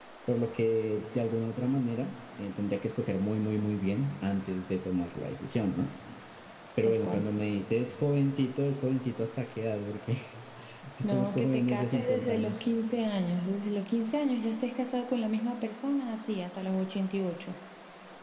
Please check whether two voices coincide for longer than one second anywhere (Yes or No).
Yes